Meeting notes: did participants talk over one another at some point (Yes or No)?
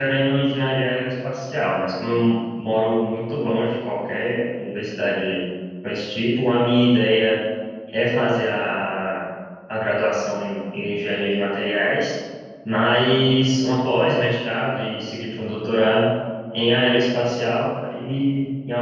No